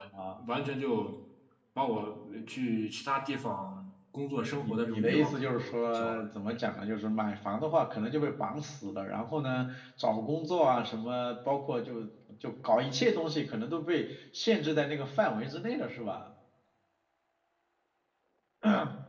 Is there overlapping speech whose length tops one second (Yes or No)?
Yes